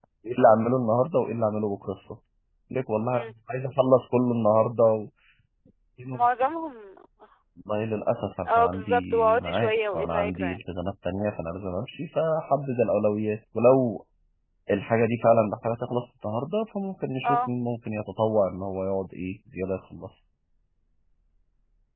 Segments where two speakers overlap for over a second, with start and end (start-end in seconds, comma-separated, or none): 8.4-10.6